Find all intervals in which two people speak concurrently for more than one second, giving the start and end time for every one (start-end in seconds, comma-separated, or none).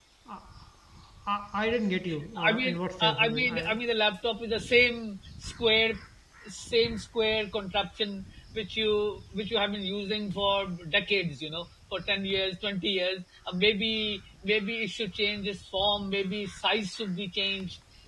2.5-3.8